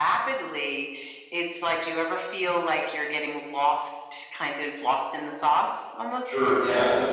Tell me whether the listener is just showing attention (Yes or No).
No